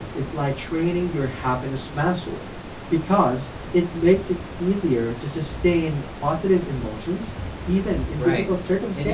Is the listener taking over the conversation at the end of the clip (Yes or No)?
Yes